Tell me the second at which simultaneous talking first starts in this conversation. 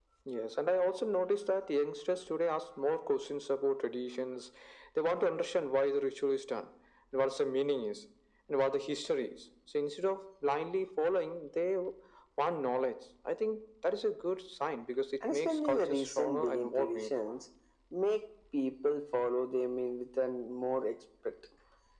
15.2 s

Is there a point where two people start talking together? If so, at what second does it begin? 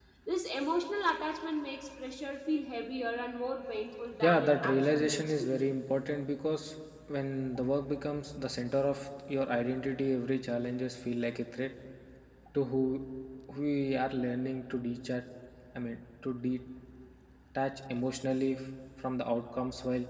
4.2 s

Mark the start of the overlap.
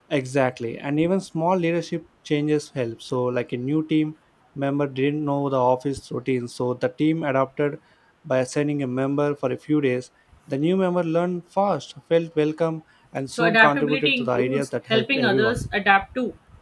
13.3 s

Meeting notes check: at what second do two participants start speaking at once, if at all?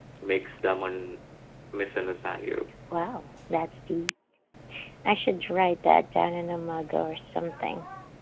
none

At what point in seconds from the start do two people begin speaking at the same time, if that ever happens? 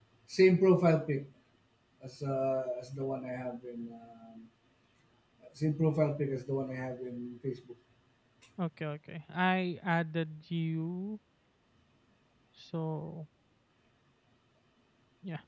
none

